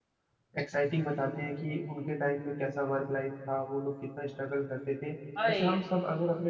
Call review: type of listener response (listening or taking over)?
listening